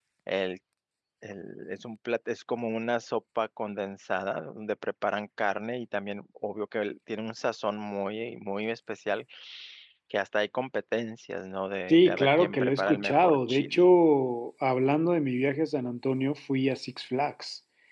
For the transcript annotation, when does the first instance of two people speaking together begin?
11.9 s

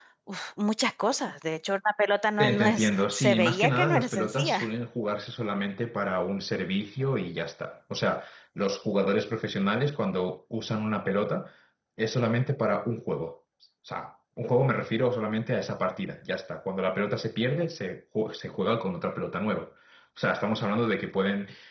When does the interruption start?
2.4 s

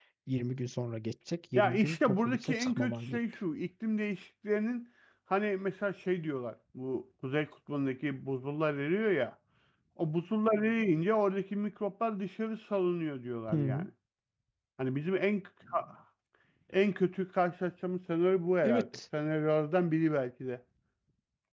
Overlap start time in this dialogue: 1.6 s

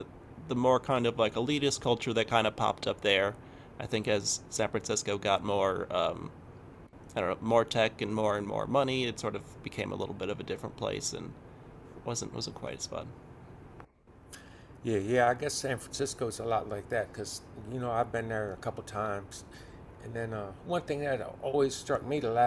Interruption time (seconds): none

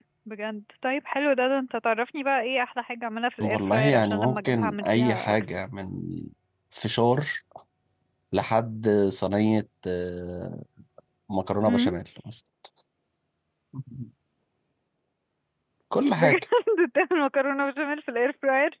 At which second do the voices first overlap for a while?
3.4 s

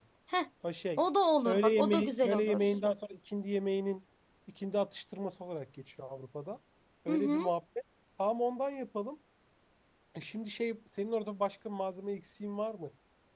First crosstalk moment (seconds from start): 1.4 s

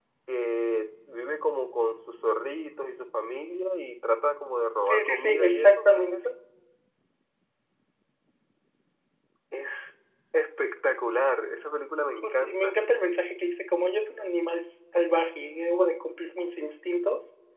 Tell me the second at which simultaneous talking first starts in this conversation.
4.9 s

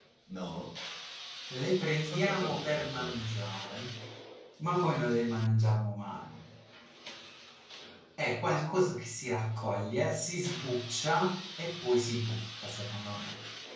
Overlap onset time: 2.0 s

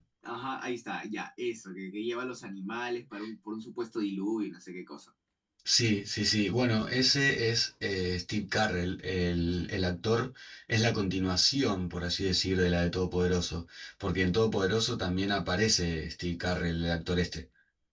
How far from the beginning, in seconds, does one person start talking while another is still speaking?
none

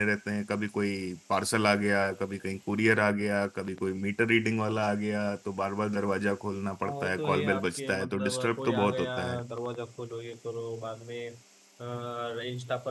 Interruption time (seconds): 6.8 s

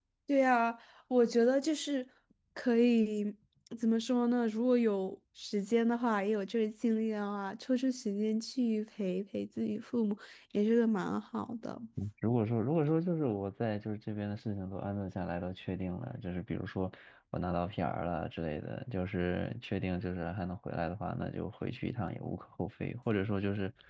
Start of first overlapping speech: none

